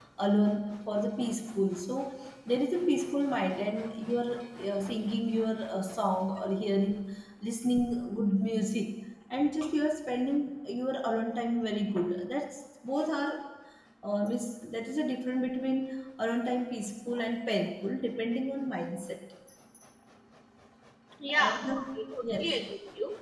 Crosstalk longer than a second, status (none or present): present